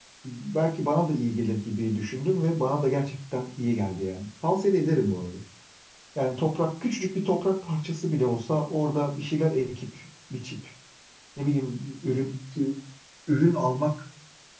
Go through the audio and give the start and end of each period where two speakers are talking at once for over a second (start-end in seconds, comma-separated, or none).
none